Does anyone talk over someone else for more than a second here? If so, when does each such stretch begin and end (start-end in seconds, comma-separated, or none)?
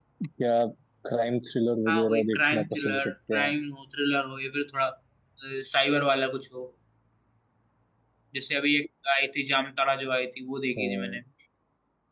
1.9-3.5